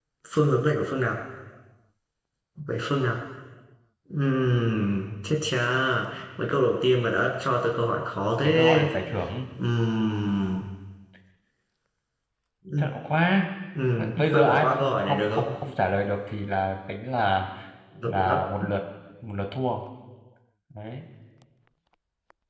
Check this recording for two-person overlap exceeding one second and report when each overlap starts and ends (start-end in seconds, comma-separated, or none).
14.0-15.6